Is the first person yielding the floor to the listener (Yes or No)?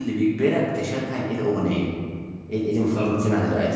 No